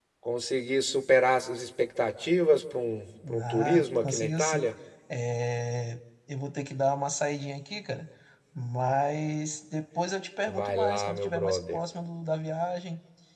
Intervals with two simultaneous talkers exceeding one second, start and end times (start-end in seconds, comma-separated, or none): 3.4-4.7, 10.5-11.8